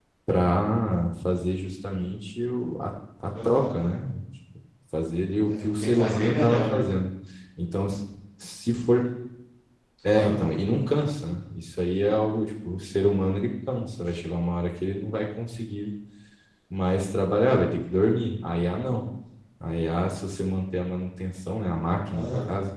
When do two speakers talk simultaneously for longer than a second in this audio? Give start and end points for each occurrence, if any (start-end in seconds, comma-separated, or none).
5.5-6.8